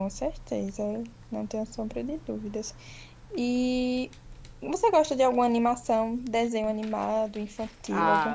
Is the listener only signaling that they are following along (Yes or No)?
No